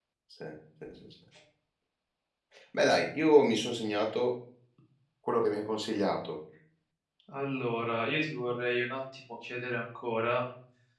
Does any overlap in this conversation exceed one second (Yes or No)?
No